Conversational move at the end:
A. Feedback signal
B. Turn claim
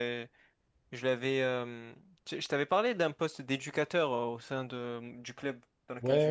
B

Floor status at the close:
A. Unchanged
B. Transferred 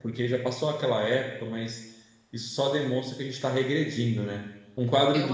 A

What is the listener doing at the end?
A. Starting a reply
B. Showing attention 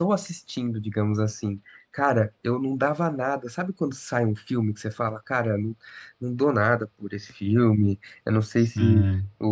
B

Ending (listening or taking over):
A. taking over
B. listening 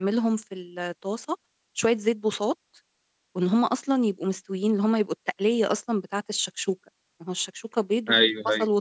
B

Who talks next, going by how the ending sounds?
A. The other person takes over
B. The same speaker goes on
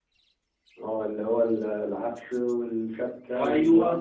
A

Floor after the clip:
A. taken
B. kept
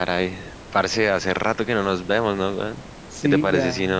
B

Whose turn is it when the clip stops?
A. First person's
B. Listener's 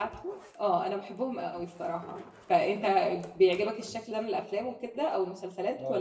B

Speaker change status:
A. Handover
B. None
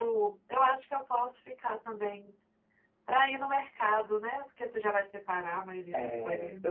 A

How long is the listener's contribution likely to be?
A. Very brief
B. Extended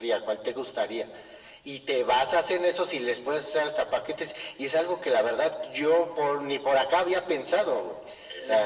B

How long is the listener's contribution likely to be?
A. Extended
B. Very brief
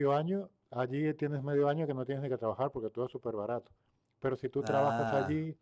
B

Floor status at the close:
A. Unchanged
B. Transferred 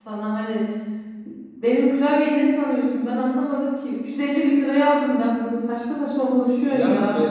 B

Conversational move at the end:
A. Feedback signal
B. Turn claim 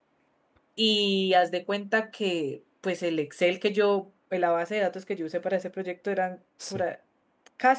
A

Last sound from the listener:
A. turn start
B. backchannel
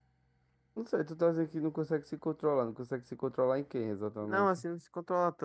A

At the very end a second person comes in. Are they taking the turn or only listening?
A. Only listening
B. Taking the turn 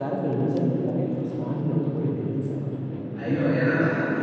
B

